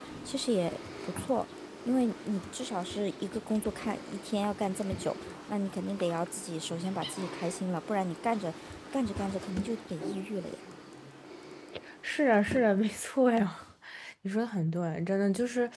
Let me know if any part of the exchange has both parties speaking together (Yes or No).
No